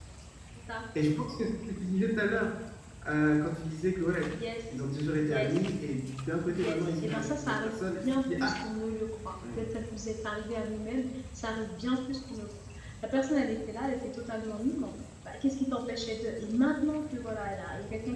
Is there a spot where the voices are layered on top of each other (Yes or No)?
Yes